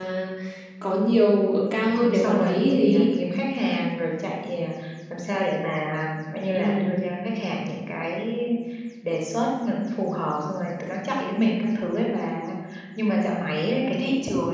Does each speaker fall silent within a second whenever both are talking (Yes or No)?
No